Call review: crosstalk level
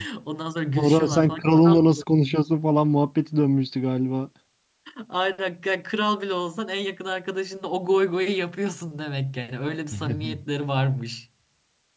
present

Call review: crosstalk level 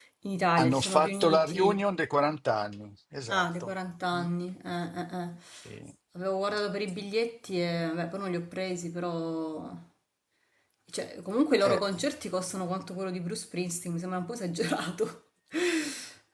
present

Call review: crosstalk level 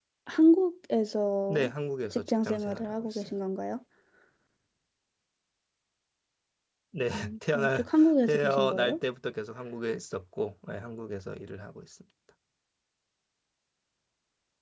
present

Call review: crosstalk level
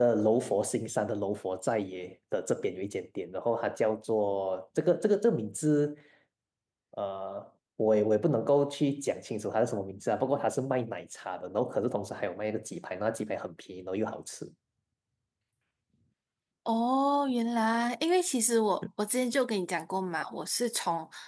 none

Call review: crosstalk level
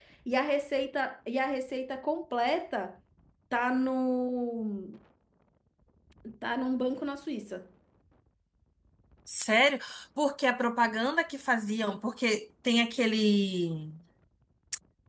none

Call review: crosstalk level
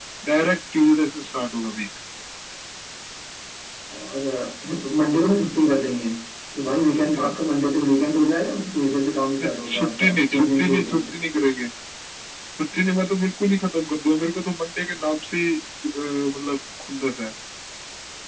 present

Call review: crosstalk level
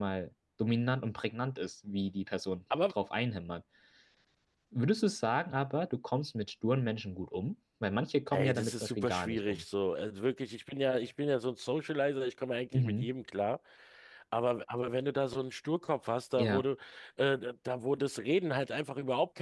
present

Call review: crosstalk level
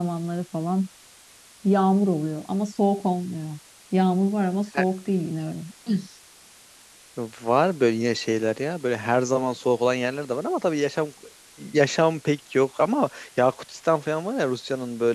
none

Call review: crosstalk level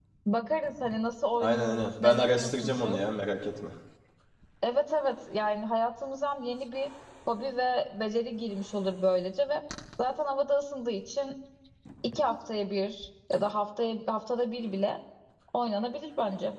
present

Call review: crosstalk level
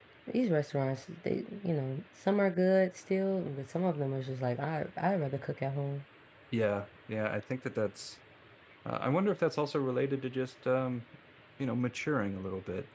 none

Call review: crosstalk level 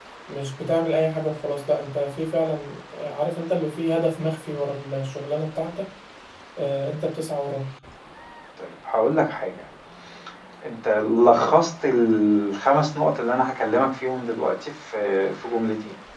none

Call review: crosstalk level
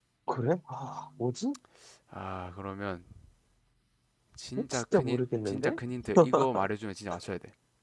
present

